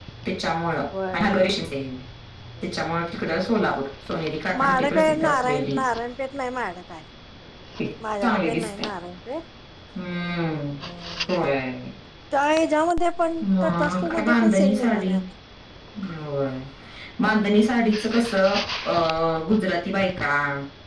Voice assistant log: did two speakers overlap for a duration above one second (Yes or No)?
Yes